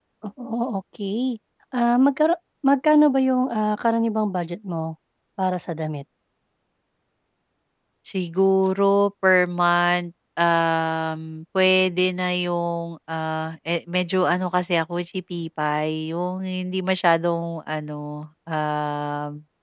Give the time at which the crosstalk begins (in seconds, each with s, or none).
none